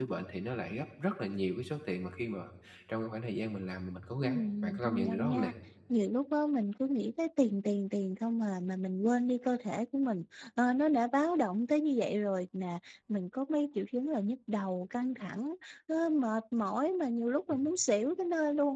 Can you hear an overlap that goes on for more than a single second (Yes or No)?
Yes